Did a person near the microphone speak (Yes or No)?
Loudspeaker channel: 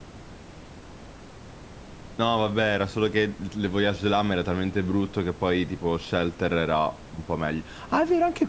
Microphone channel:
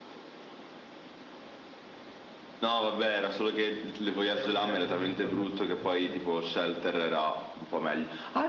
Yes